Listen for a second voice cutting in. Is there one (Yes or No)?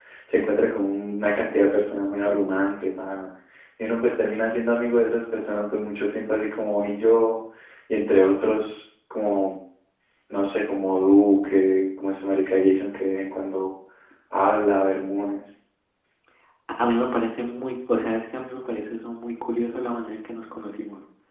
No